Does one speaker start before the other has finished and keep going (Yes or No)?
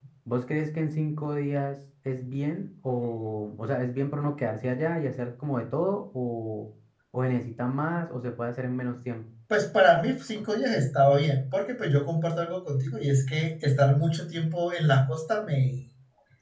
No